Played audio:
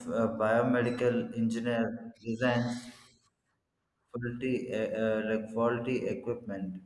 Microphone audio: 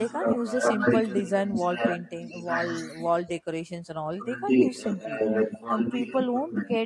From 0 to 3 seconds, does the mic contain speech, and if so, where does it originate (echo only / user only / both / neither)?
both